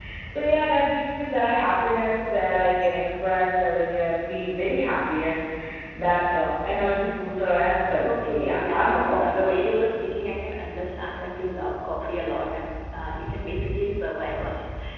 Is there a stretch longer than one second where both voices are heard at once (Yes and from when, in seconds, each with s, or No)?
Yes, from 8.0 s